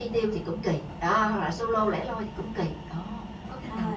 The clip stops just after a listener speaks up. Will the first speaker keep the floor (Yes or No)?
No